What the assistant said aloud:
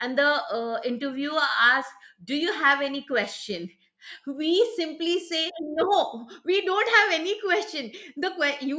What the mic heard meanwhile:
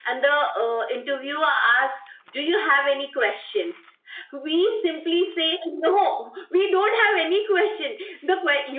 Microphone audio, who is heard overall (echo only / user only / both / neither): echo only